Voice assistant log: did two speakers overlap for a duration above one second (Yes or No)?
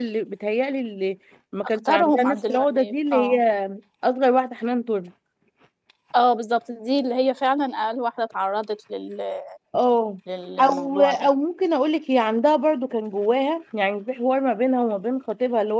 Yes